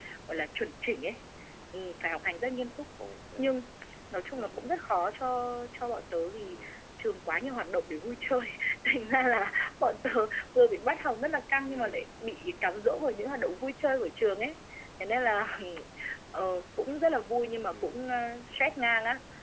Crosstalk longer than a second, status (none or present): none